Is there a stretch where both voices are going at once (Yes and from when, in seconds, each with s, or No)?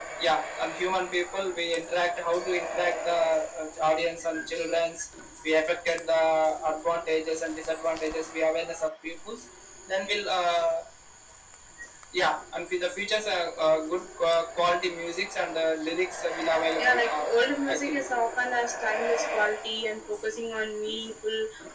Yes, from 16.8 s